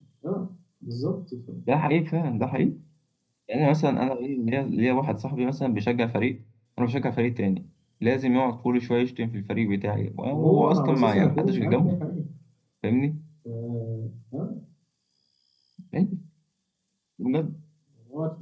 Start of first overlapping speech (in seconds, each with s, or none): 10.3 s